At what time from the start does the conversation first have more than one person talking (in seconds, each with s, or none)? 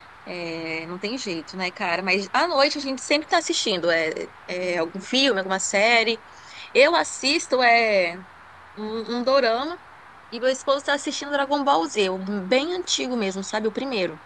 none